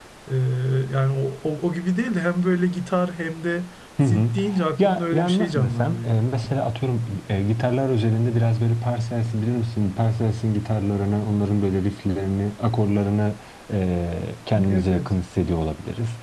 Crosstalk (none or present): present